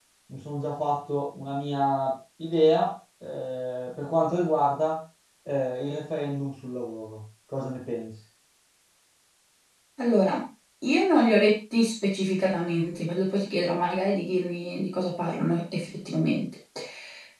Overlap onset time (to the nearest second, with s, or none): none